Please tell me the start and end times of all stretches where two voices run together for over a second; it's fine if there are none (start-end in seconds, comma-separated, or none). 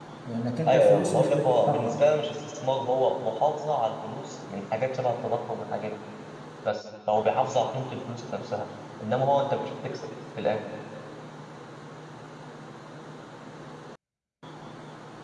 0.7-1.9